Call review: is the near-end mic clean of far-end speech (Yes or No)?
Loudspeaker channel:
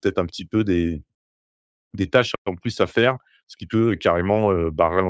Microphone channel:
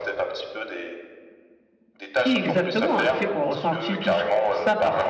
No